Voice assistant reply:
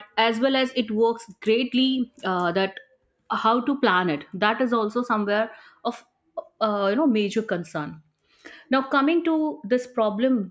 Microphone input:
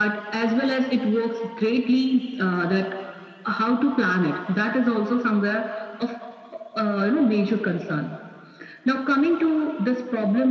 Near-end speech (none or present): none